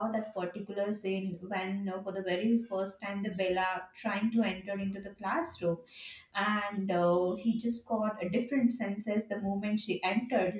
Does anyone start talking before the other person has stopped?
No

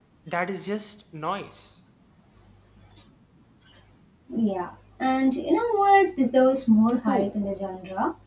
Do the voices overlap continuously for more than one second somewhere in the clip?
No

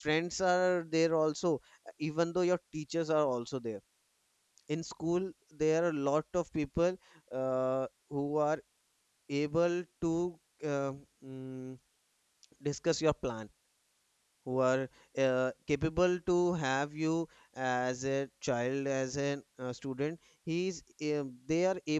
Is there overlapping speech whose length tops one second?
No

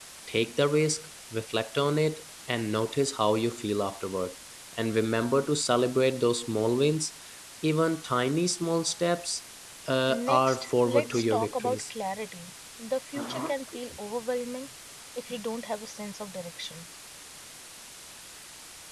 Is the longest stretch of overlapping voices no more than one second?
No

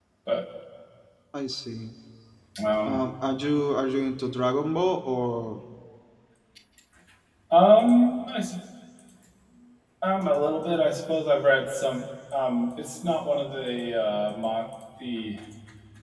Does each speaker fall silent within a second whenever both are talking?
Yes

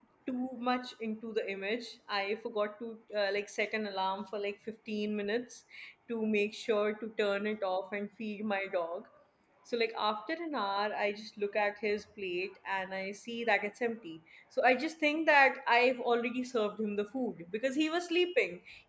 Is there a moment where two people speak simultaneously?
No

